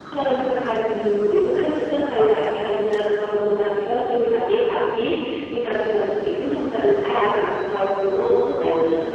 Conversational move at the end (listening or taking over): listening